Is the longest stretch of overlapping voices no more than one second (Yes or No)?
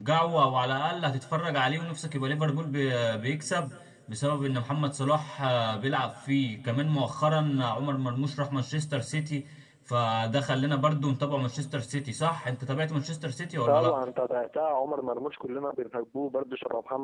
Yes